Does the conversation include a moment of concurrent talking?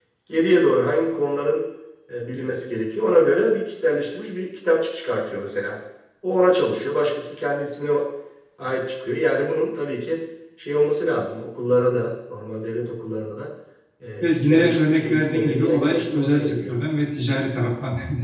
Yes, from 14.2 s

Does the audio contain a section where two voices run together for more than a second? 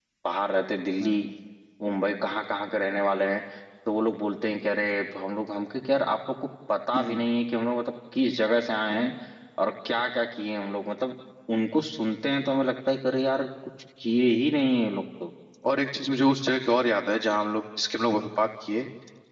No

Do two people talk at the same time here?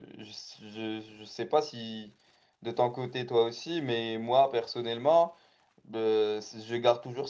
No

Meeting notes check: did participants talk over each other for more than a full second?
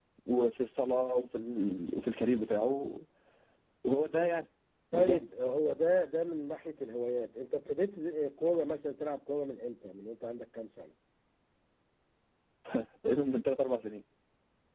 No

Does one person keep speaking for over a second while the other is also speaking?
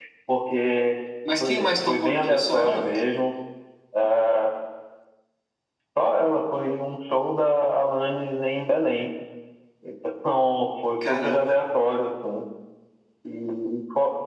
Yes, from 1.4 s

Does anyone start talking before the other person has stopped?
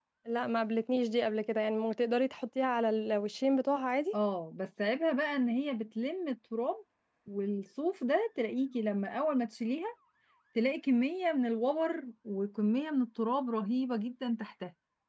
No

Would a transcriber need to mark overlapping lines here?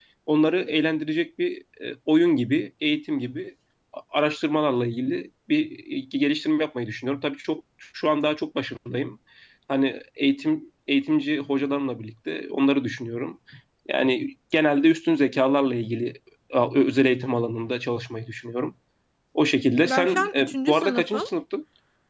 Yes, from 19.8 s

